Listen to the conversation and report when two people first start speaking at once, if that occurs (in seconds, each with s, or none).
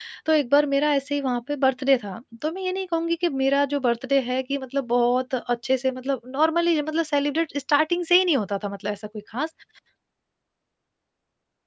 none